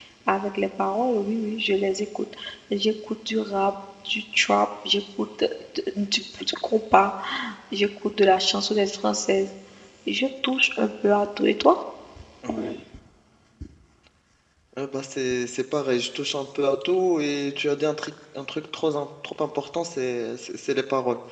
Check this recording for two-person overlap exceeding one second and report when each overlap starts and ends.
none

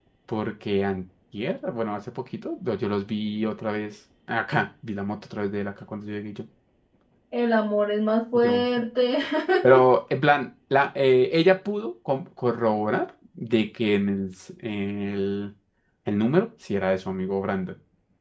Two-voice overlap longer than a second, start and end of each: none

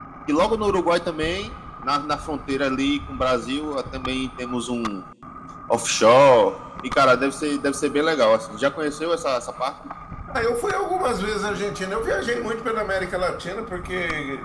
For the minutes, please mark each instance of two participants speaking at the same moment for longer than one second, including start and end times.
none

